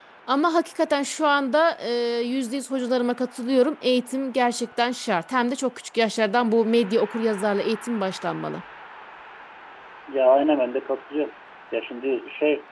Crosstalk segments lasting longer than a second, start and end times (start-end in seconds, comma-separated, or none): none